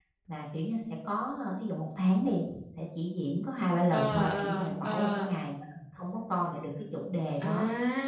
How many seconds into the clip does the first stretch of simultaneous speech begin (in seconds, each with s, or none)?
3.9 s